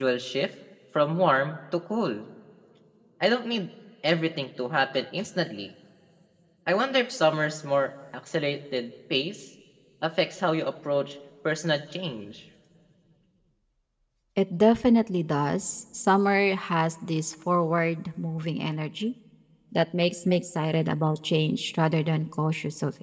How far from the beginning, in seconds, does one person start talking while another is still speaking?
none

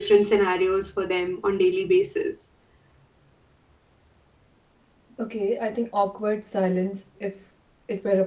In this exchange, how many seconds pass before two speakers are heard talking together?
none

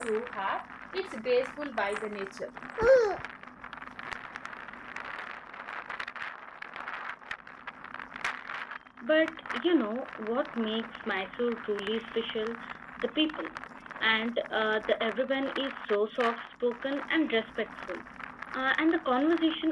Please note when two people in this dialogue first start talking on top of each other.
none

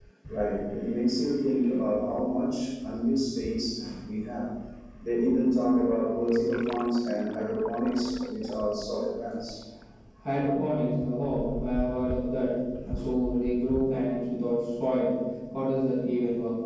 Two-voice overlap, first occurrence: none

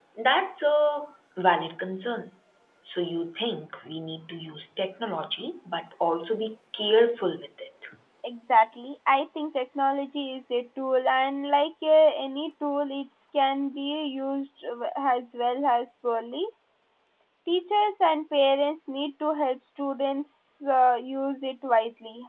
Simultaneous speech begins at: none

